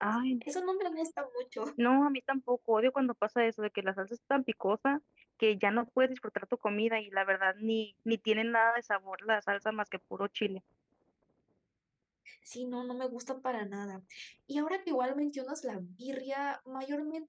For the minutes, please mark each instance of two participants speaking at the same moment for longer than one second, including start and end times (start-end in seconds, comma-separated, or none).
none